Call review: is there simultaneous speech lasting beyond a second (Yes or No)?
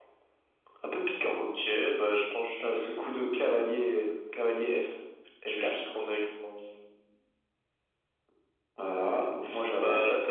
No